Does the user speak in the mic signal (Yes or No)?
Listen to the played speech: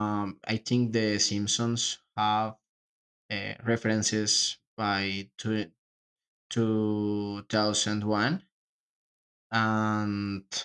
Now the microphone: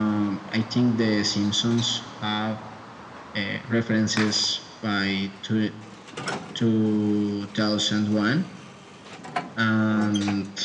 No